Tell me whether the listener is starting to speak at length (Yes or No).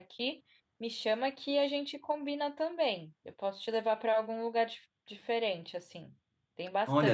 Yes